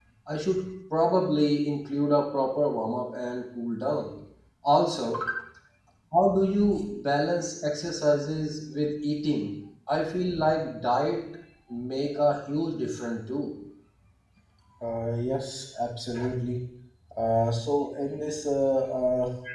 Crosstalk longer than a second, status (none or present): none